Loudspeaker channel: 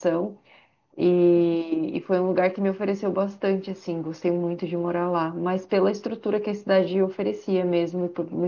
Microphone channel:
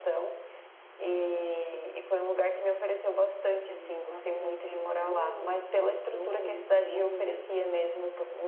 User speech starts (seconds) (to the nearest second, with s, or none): 4 s